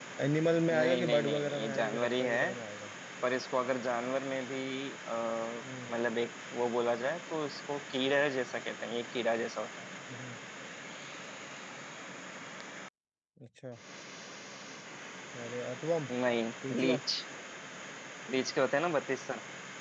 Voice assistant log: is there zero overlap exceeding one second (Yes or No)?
No